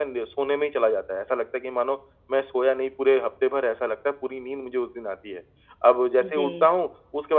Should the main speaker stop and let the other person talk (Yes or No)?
No